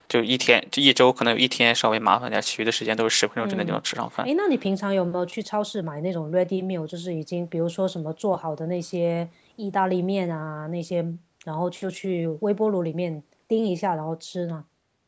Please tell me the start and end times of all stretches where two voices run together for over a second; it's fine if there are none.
none

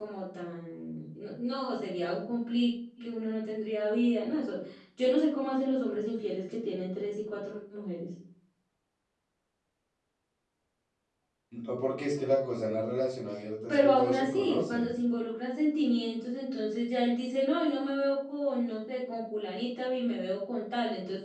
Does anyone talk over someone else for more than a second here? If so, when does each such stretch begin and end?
13.7-14.9

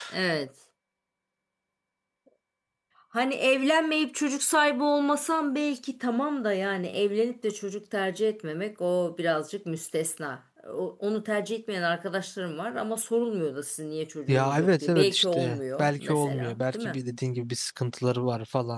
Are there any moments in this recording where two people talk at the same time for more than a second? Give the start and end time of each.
14.3-17.0

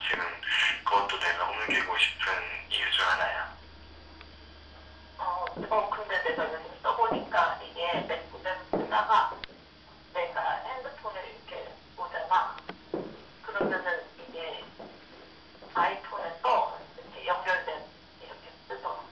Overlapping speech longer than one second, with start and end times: none

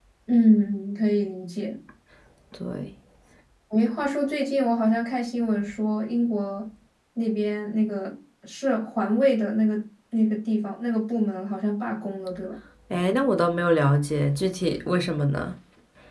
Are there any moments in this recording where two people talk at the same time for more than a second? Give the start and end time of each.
none

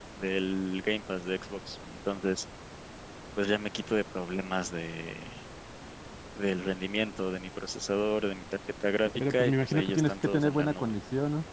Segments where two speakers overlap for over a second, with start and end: 9.2-10.9

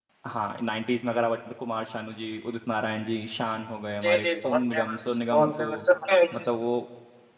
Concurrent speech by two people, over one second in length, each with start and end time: 4.0-5.7

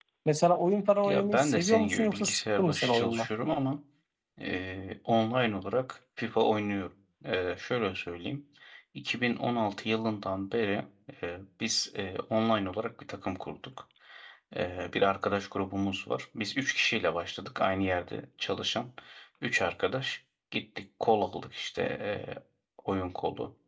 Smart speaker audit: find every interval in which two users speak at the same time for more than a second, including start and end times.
1.0-3.3

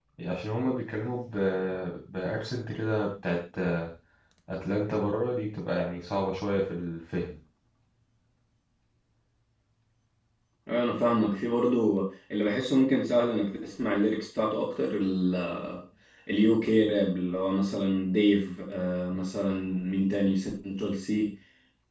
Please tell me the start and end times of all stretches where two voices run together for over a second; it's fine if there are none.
none

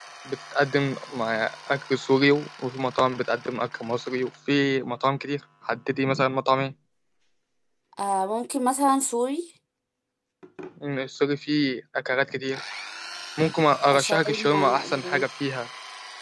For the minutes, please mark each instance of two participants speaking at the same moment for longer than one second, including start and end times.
13.9-15.2

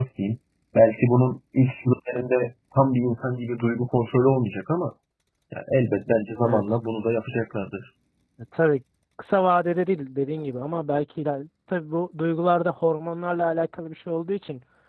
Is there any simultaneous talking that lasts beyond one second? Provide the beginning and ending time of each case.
none

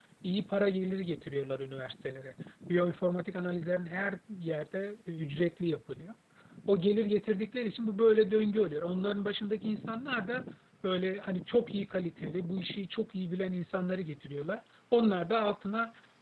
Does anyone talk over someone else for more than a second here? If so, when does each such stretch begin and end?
none

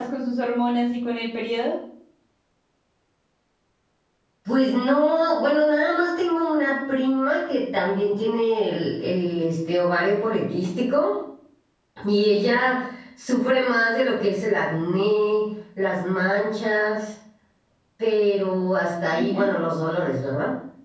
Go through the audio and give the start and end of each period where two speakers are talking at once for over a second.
none

